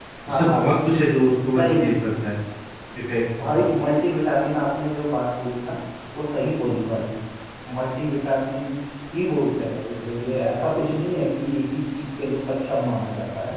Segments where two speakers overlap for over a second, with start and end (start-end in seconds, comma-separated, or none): none